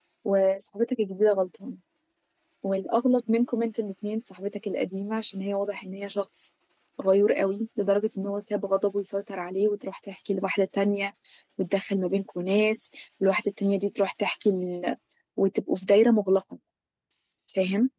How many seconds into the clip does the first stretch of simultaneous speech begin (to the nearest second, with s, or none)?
none